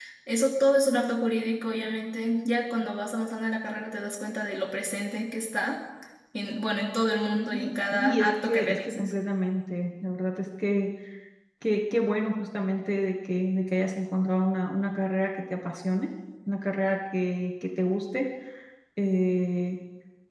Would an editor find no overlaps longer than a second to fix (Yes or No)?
No